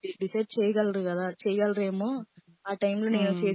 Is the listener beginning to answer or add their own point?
Yes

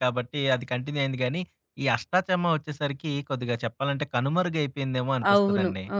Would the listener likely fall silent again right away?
No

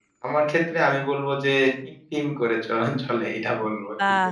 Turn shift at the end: Yes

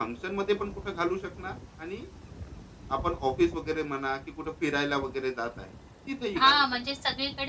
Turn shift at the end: Yes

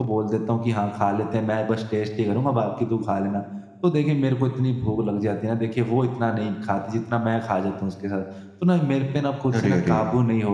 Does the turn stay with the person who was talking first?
Yes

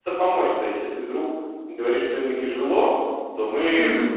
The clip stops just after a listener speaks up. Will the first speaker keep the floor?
Yes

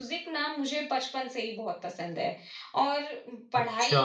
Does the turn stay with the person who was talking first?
Yes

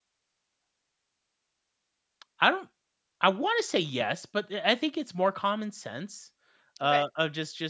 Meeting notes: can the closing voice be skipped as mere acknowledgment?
Yes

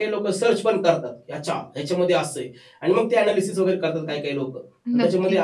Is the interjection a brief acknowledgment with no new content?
Yes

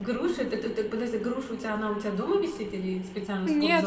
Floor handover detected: Yes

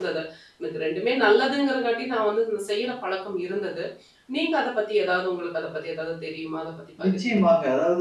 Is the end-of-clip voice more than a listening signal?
Yes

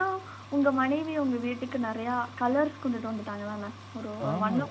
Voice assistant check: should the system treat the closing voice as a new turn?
Yes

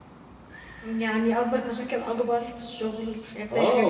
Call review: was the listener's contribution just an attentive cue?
No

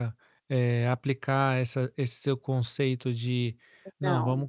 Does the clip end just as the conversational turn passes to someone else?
No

